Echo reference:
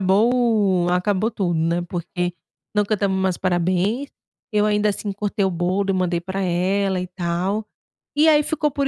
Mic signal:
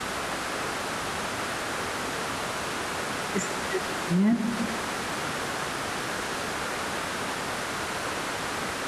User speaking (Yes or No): Yes